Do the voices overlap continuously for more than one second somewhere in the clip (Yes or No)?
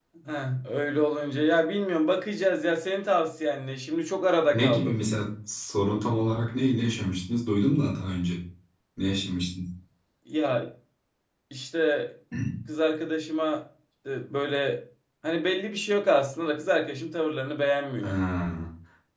No